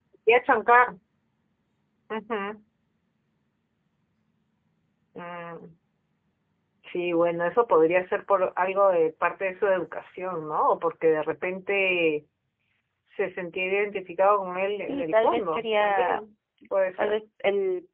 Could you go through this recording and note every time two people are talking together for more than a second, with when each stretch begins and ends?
14.9-16.2

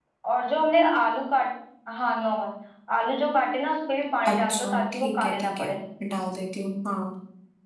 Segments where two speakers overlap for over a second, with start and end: 4.3-5.7

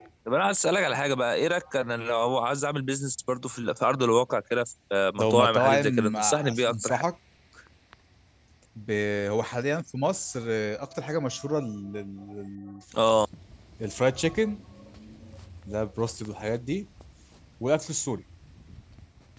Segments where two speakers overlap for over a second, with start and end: 5.2-7.0

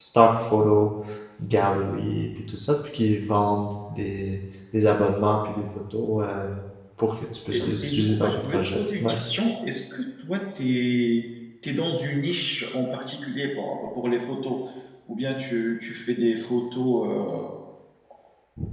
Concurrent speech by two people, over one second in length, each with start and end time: 7.5-9.2

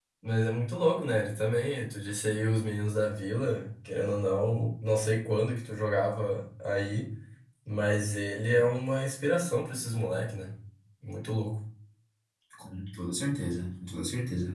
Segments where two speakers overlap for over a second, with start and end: none

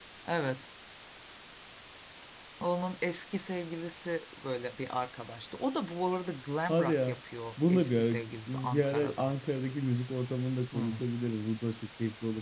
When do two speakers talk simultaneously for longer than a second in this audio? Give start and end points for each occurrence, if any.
7.7-9.3

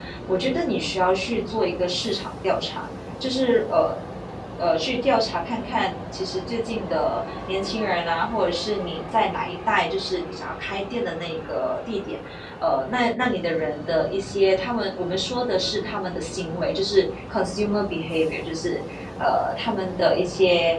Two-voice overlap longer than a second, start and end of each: none

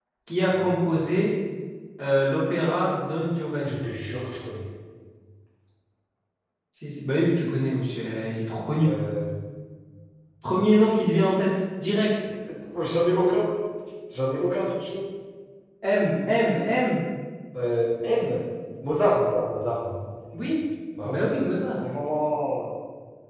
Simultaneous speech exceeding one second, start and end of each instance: none

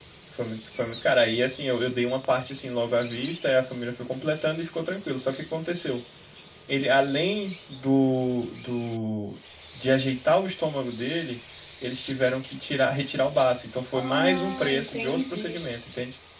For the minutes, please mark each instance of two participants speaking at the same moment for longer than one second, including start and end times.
13.9-15.6

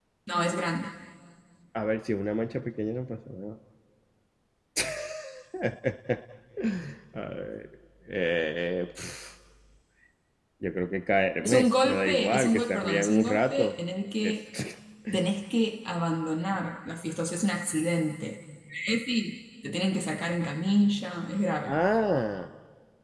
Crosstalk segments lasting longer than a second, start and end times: 11.4-13.7

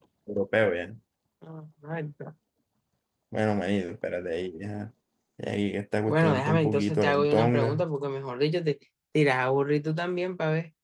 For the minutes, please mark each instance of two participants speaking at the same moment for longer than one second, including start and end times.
6.1-7.8

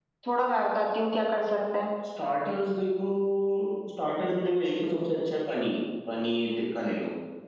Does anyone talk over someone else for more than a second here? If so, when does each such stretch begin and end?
none

